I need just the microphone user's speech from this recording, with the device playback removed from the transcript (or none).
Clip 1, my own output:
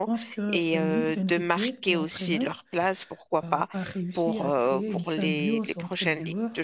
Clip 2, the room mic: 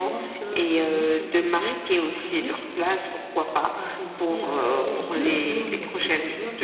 oui, je suis,